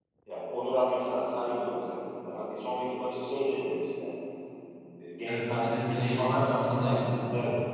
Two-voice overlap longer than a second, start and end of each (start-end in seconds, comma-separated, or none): 5.3-7.0